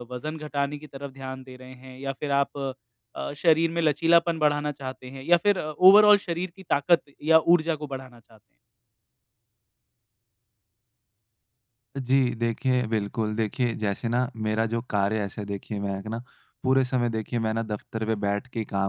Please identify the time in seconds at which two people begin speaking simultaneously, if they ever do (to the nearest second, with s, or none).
none